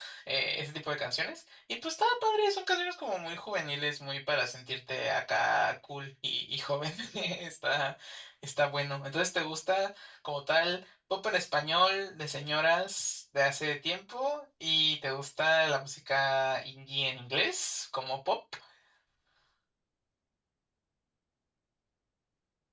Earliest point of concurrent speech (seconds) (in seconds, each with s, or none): none